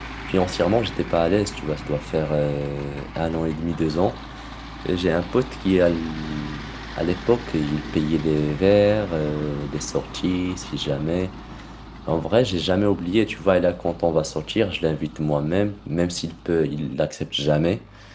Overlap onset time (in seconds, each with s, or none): none